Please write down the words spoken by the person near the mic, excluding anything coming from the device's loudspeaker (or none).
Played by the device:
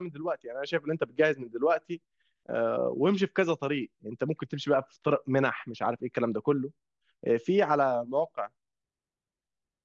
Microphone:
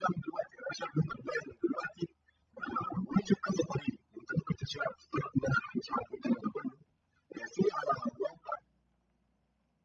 none